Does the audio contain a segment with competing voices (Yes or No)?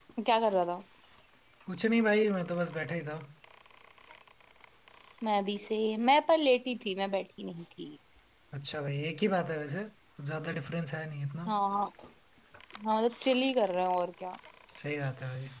No